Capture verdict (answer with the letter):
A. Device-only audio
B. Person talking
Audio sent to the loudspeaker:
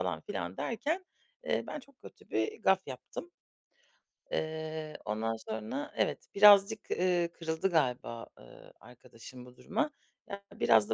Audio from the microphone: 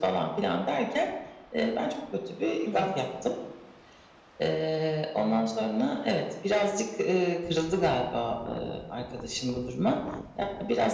B